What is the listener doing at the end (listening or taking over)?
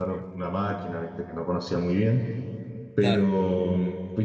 listening